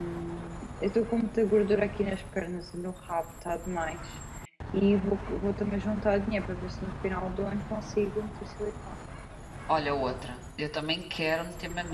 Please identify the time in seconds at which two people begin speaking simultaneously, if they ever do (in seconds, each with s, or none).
none